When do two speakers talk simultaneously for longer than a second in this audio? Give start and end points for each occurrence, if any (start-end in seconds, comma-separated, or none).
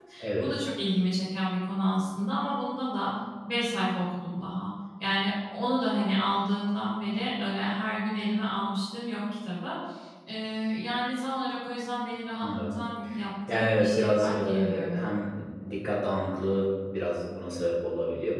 13.5-15.1